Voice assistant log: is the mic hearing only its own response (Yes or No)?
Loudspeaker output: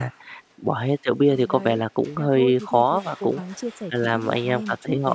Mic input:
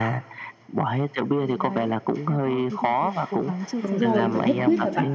No